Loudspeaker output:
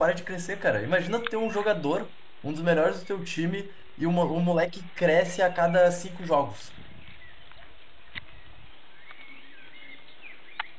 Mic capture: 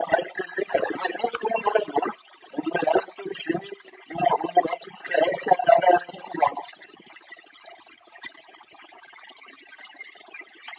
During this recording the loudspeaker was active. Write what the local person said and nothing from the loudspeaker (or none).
none